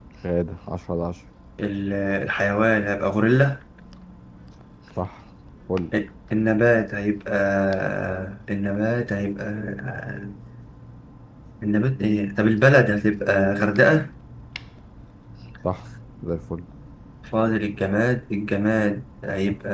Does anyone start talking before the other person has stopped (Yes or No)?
No